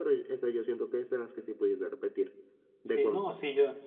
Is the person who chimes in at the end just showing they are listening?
No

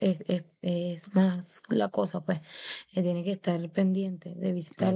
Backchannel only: Yes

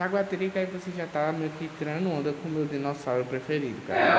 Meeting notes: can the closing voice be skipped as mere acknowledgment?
No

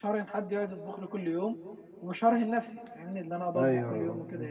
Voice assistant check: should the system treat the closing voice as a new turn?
Yes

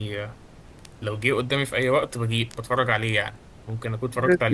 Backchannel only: Yes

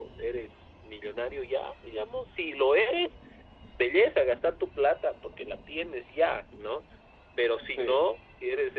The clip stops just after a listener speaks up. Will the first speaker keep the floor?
Yes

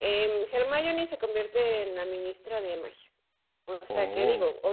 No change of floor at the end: Yes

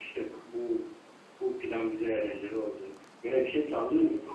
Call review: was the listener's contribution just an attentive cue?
Yes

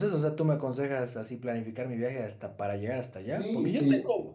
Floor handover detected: No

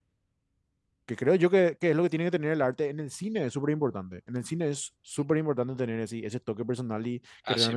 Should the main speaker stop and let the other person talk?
No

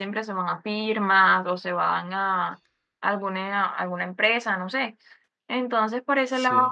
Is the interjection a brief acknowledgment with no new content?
Yes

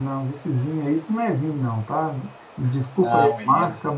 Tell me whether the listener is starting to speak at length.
No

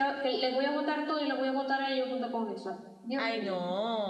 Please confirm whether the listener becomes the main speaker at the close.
Yes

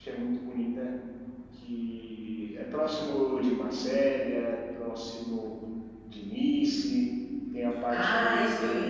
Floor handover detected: Yes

